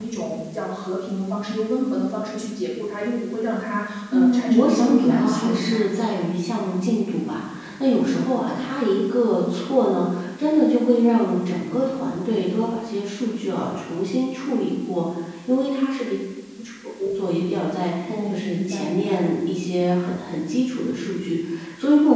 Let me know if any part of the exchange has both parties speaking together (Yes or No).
Yes